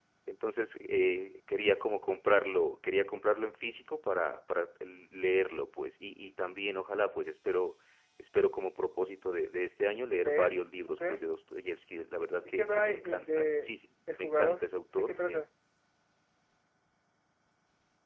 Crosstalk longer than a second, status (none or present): present